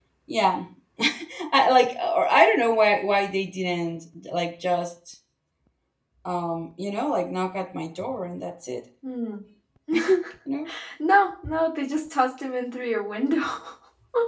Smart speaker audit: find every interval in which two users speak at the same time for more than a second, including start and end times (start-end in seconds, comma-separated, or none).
none